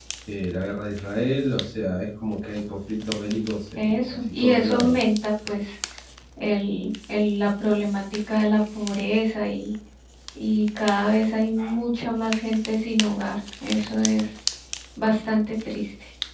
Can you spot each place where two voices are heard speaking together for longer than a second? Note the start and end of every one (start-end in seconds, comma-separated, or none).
3.8-5.0